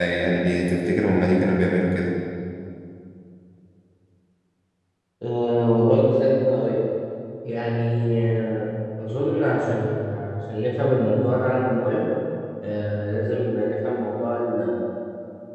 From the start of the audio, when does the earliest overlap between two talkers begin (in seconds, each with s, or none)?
none